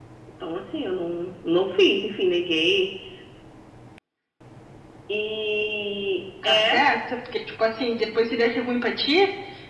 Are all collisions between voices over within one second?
Yes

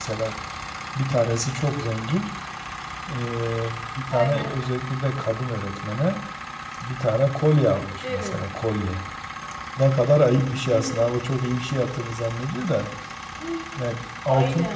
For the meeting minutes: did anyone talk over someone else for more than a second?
No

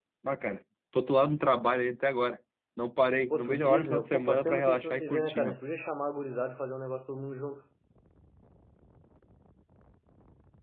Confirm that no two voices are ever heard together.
No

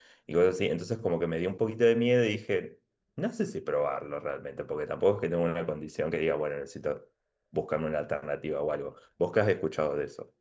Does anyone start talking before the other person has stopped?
No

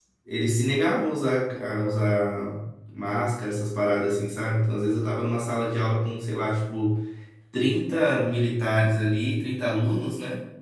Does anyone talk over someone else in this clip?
No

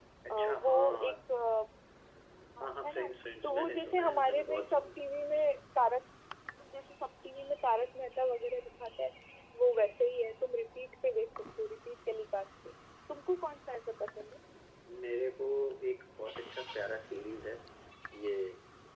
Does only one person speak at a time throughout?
No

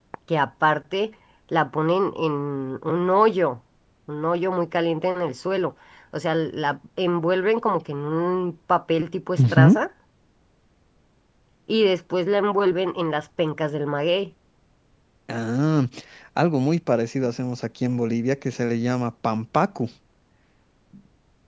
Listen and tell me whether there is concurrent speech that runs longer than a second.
No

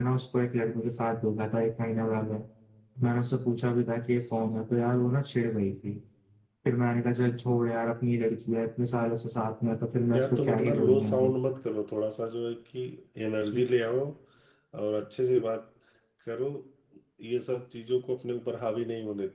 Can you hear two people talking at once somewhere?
Yes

